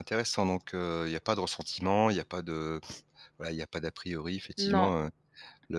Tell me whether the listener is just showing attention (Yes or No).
Yes